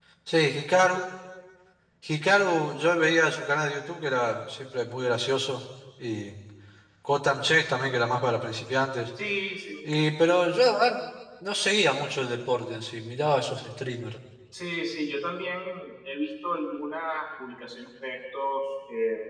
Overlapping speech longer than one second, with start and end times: none

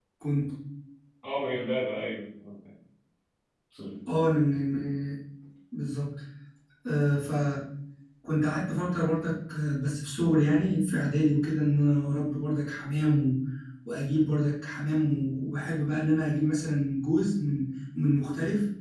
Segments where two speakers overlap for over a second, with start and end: none

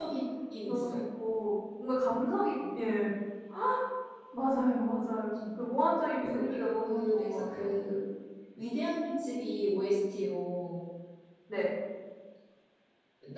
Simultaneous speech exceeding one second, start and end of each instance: 6.2-7.8

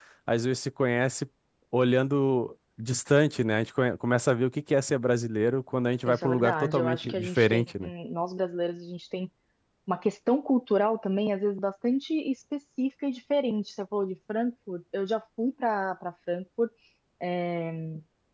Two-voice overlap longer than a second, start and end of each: 6.1-7.7

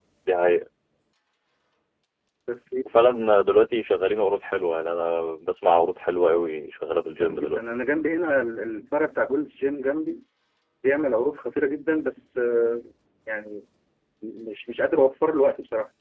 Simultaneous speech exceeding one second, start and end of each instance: none

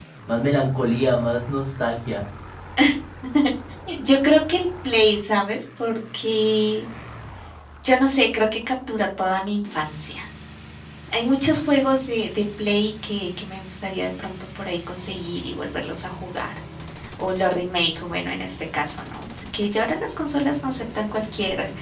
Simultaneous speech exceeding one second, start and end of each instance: none

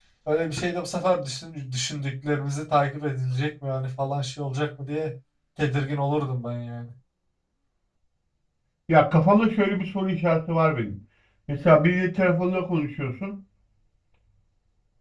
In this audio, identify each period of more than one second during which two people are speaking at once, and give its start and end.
none

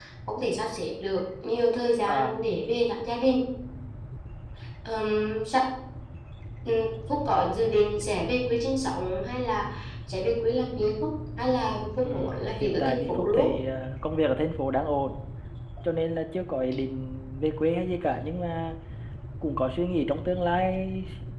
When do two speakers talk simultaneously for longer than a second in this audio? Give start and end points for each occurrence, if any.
12.0-13.5

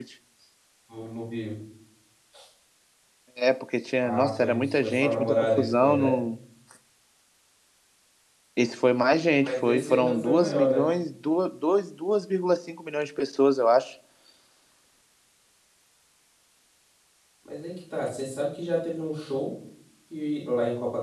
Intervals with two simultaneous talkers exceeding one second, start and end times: 4.0-6.2, 9.4-10.8

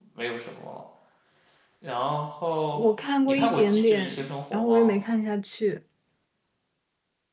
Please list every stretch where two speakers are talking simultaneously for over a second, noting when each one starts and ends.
3.3-4.9

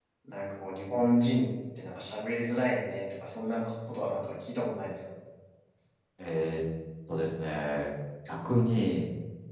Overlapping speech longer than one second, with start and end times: none

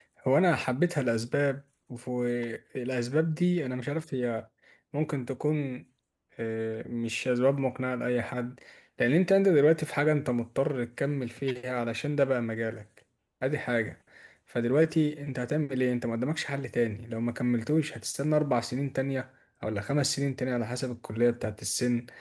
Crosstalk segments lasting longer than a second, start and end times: none

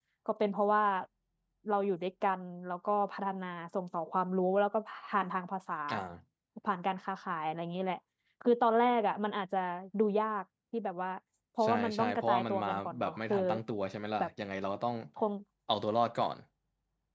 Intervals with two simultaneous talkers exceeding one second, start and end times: 11.6-13.4

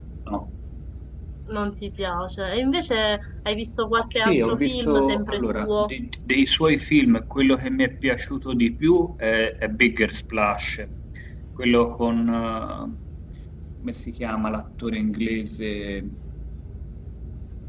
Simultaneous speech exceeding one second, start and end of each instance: 4.2-5.9

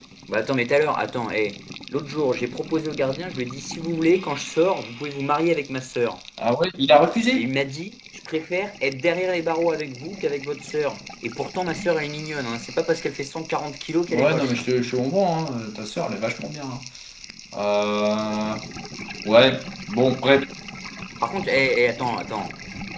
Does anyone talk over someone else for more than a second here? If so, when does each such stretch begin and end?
none

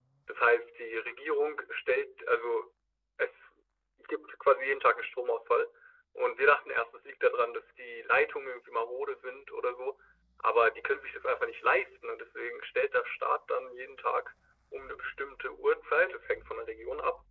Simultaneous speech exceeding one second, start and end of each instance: none

